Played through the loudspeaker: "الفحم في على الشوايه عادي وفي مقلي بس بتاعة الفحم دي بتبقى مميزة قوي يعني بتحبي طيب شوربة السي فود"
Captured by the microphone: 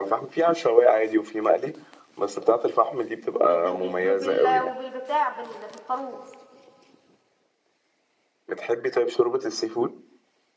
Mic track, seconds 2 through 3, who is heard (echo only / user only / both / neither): echo only